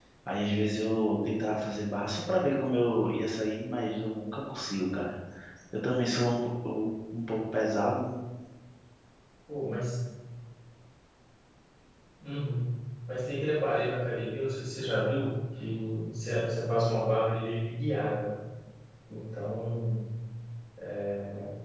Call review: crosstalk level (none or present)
none